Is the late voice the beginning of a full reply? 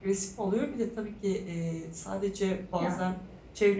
No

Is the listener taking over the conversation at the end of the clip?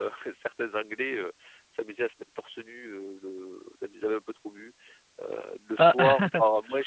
No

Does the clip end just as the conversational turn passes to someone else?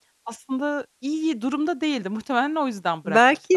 Yes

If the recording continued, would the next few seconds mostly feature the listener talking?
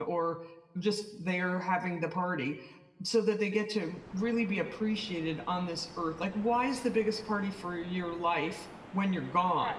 Yes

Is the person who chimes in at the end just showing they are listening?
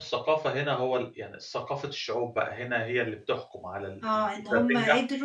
No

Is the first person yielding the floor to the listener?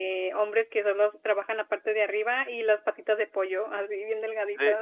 Yes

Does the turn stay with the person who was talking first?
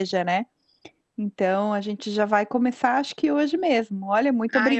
No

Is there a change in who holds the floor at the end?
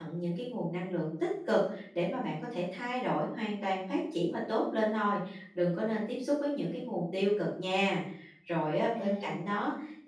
No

